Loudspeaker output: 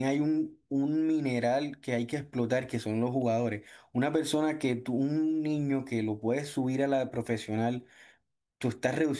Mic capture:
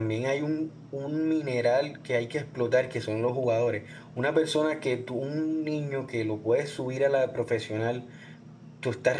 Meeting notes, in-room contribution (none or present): none